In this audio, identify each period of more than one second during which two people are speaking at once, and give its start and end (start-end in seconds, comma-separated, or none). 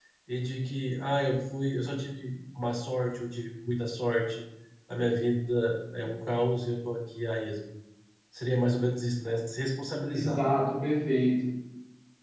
none